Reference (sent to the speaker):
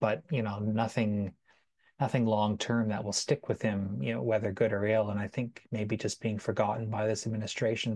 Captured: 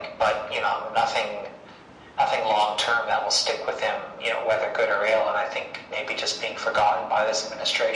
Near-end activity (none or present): none